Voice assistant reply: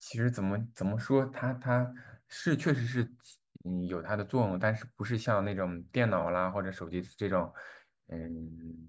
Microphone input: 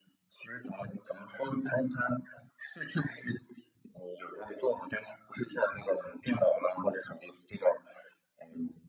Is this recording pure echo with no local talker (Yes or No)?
Yes